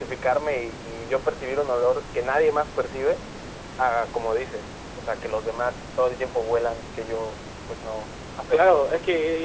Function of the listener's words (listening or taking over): taking over